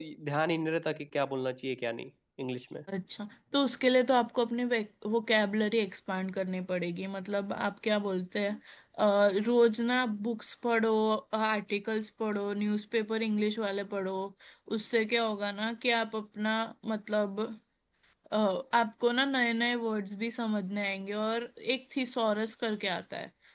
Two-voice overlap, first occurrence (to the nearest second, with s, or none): none